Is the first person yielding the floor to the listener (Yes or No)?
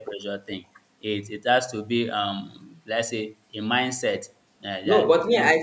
Yes